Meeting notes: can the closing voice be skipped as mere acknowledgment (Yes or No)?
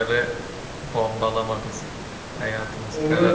No